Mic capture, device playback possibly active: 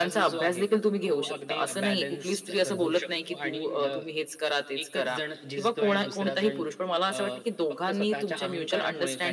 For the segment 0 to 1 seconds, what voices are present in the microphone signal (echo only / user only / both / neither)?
echo only